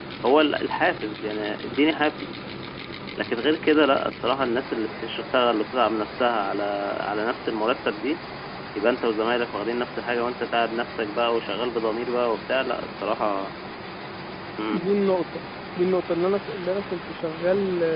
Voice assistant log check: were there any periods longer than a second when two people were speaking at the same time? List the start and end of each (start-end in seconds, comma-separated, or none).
none